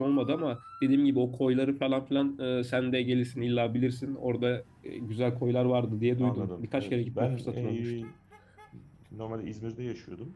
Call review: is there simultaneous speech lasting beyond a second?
Yes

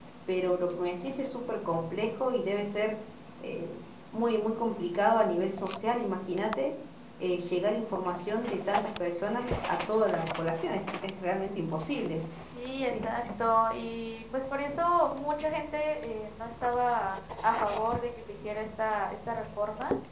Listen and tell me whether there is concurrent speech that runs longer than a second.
No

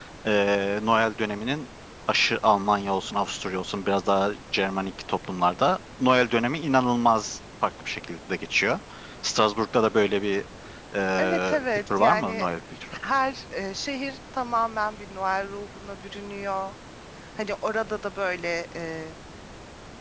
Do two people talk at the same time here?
Yes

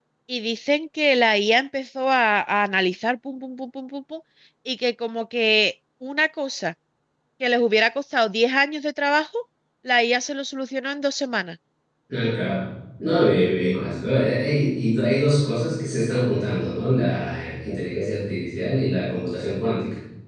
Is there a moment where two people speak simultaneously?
No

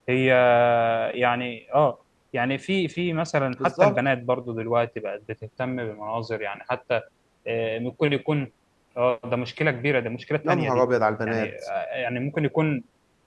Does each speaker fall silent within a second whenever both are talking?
Yes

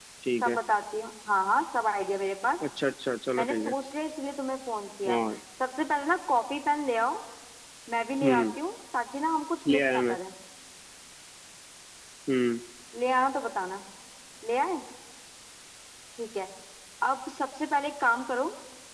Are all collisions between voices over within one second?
Yes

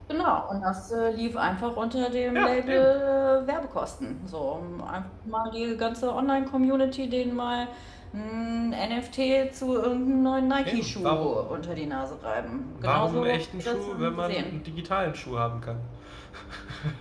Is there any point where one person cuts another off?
Yes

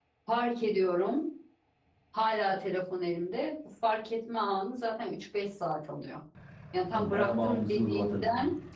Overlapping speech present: Yes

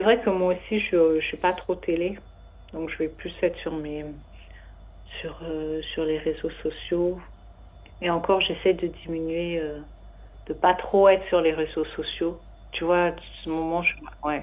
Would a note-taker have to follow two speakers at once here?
No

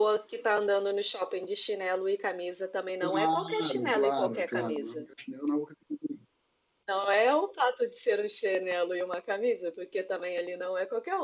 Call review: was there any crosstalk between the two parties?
Yes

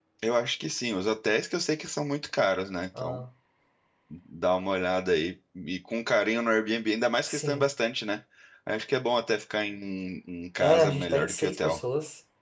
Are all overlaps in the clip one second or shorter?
No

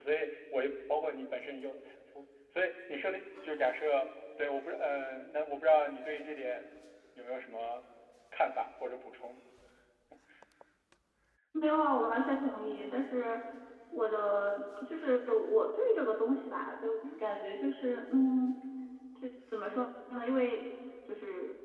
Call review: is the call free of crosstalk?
Yes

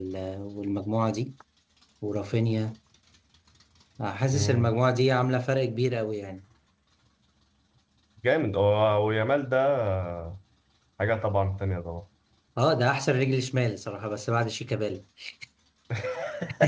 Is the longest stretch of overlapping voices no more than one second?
Yes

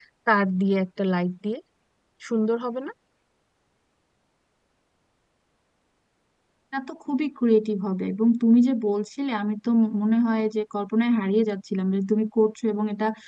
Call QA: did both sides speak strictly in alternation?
Yes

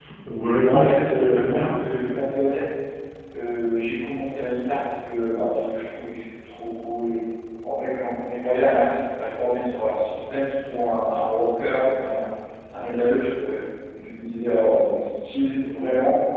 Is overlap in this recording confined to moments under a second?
No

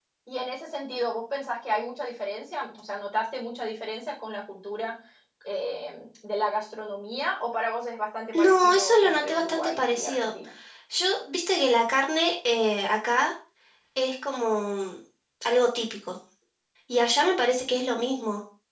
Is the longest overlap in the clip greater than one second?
Yes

